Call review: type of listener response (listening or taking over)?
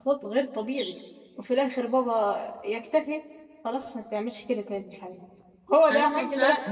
taking over